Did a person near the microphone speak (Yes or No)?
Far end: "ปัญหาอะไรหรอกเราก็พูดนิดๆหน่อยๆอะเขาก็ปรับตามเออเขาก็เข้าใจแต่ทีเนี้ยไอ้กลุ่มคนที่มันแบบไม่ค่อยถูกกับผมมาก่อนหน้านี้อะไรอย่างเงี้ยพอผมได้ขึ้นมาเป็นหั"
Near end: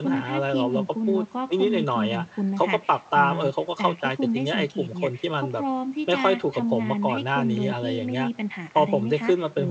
Yes